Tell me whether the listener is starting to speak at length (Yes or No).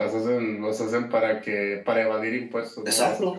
Yes